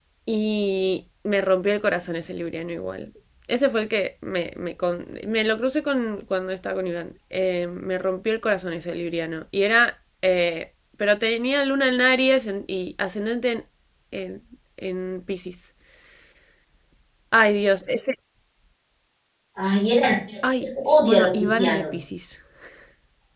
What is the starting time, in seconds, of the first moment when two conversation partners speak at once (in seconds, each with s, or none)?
20.9 s